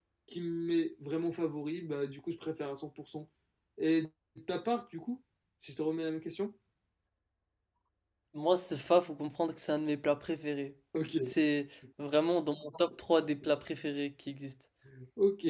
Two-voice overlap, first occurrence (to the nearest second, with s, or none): none